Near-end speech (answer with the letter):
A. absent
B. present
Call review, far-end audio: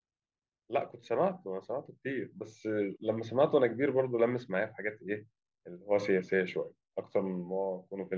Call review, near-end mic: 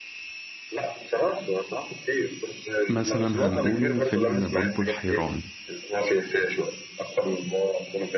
B